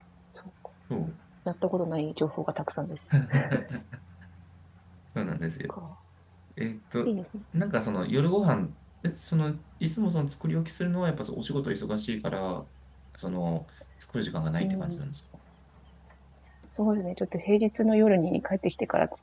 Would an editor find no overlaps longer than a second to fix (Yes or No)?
Yes